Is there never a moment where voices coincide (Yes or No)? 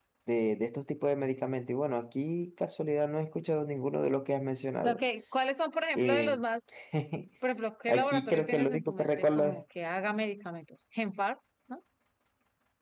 No